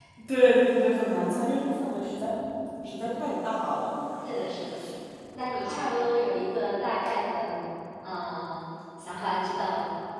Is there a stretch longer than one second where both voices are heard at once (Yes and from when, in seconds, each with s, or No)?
No